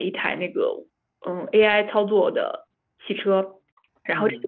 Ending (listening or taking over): listening